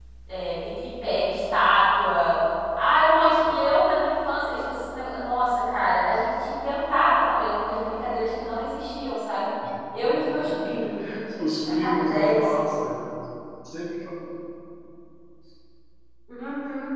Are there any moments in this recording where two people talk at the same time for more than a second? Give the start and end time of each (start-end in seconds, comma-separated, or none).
11.4-12.7